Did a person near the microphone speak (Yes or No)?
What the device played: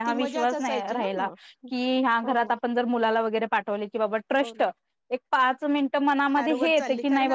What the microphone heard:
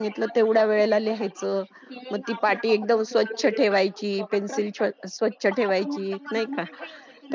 Yes